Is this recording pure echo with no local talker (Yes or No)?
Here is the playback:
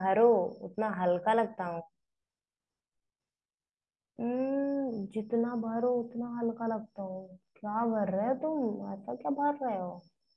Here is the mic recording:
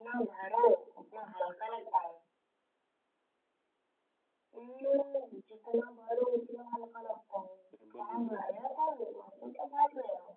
No